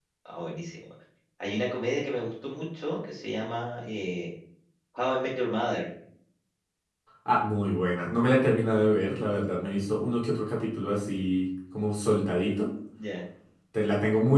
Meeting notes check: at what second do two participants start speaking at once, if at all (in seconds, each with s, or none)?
none